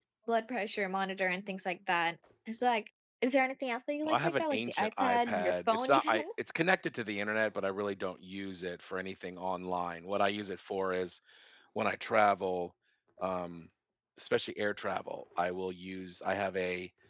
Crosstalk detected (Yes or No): Yes